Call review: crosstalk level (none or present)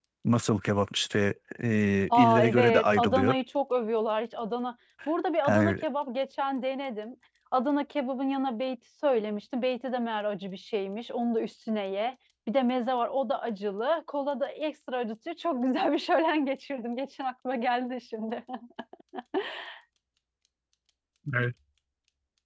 present